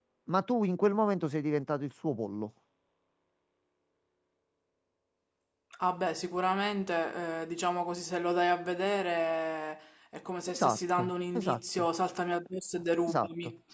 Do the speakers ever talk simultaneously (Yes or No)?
Yes